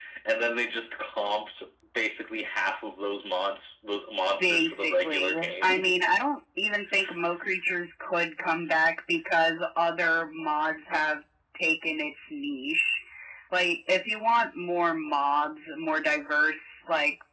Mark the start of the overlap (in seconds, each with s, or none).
4.4 s